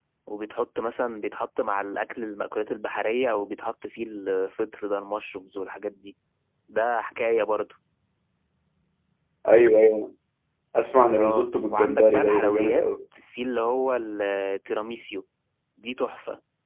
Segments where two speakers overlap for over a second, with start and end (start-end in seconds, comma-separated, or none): 11.1-12.9